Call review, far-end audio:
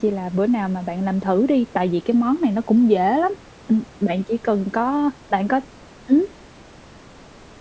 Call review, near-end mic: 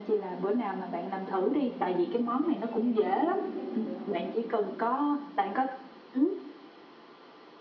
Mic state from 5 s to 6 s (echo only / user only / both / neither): echo only